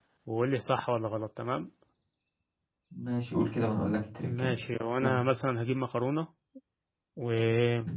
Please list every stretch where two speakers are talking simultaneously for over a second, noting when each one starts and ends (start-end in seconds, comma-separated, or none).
none